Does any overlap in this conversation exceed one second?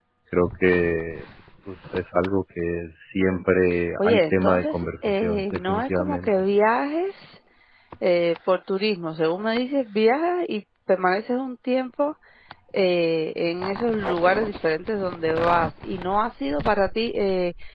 Yes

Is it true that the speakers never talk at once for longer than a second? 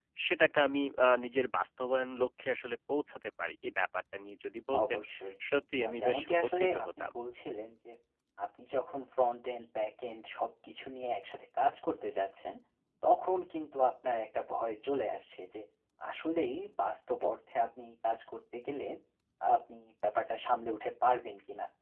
No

